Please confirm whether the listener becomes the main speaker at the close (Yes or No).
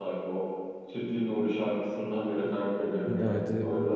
Yes